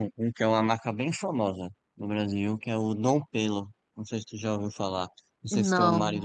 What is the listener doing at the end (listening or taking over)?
listening